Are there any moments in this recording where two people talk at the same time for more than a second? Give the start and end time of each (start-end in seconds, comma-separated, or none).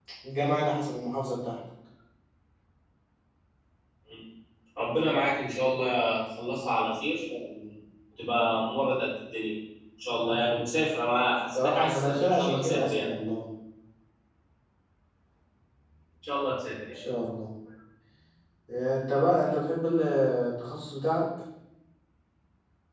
11.5-13.1